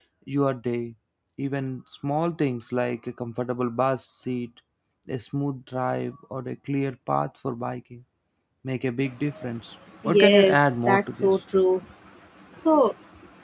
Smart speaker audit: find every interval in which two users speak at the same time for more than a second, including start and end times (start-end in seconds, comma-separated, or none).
10.1-11.3